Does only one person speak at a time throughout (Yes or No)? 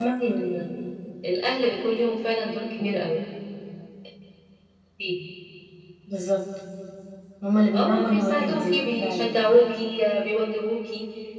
No